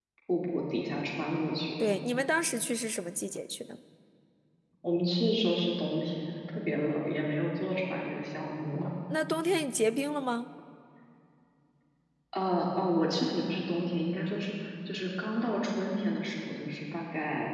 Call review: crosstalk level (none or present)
none